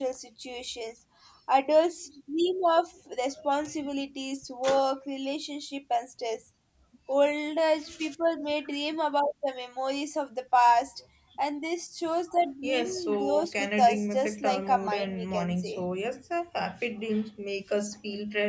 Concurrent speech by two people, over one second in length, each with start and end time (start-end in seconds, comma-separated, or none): 12.6-15.8